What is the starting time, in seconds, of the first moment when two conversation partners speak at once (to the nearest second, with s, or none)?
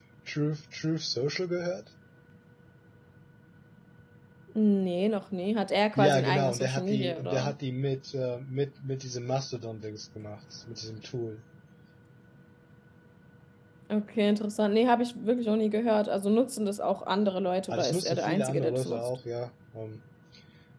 6 s